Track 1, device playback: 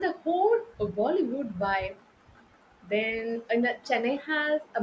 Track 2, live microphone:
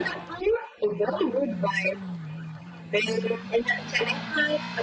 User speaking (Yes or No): No